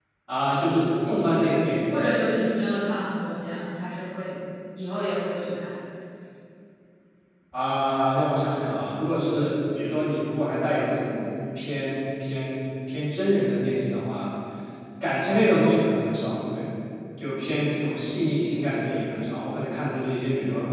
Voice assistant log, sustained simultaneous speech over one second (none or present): none